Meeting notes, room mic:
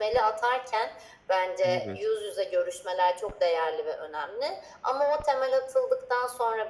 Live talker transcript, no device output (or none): Evet.